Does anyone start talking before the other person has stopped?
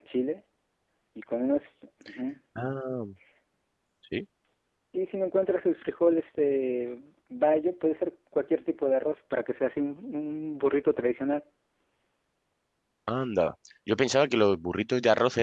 No

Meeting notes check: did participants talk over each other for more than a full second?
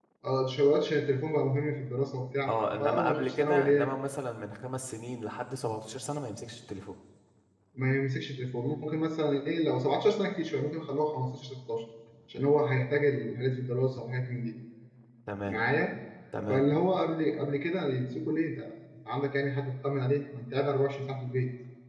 Yes, from 2.5 s

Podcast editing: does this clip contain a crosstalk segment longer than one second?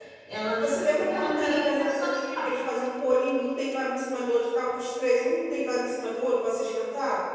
Yes, from 0.6 s

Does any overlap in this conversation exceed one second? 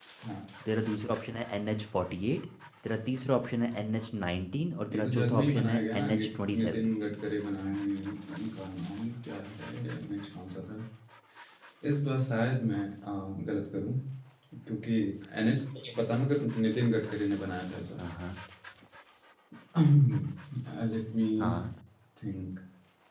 Yes, from 4.9 s

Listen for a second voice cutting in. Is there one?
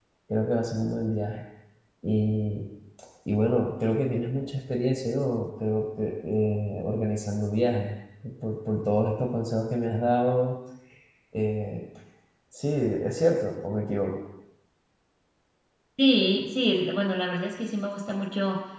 No

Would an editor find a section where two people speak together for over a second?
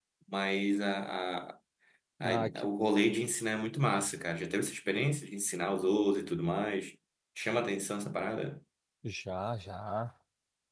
No

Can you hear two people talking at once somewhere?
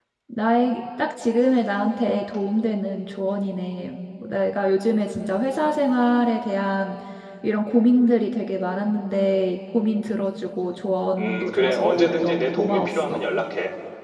Yes, from 11.2 s

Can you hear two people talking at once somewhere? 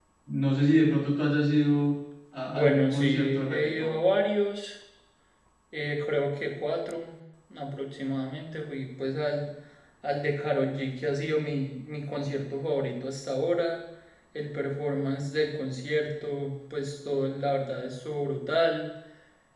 Yes, from 2.5 s

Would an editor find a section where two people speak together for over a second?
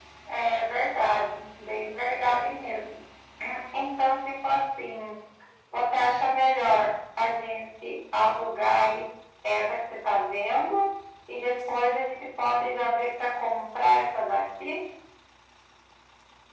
No

